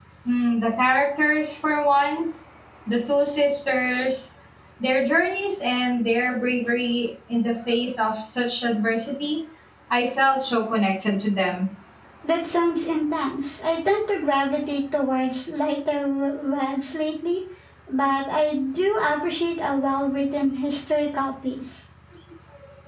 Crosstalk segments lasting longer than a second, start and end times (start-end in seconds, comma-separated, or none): none